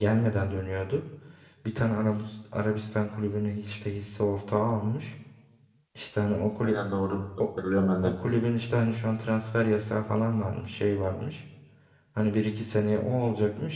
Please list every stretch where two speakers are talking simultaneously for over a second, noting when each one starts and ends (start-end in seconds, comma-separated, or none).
none